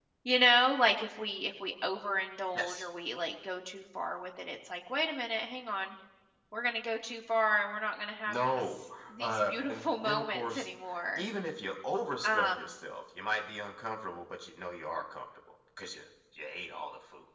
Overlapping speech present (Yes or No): Yes